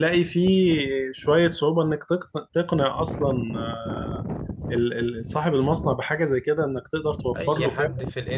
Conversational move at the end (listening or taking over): taking over